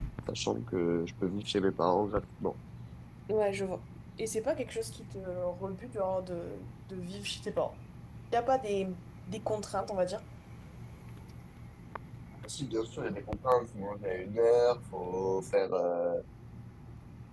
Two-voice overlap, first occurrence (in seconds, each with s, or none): none